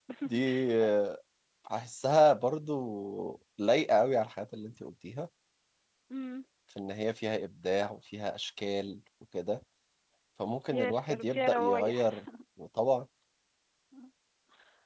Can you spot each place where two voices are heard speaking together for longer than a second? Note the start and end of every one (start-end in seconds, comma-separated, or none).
10.7-12.2